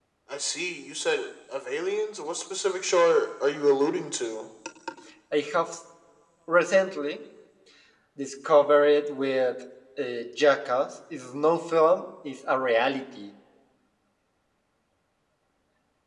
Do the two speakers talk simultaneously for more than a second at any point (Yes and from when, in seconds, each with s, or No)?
No